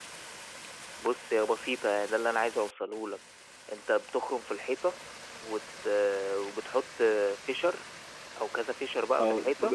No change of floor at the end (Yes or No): No